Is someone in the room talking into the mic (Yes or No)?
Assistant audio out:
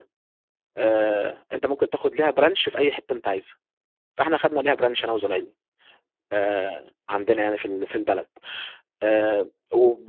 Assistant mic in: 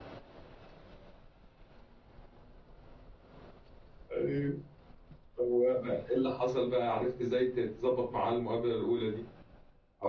Yes